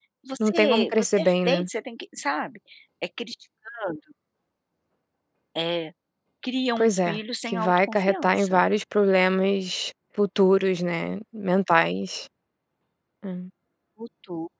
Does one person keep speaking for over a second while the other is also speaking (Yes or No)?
Yes